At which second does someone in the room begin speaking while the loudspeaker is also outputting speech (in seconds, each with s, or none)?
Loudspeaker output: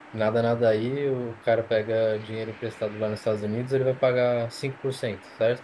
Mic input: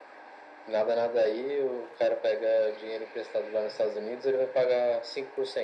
none